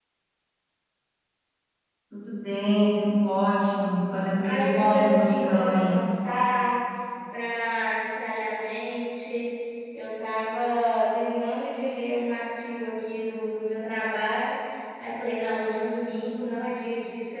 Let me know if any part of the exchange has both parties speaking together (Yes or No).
Yes